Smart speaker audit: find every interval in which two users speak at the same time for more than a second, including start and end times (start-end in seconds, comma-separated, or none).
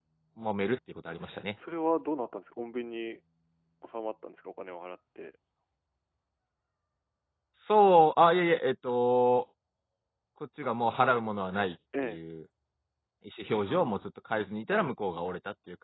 none